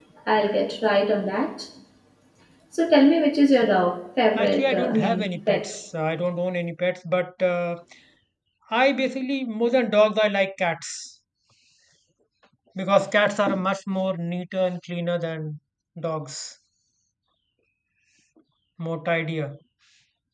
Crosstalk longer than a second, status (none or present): present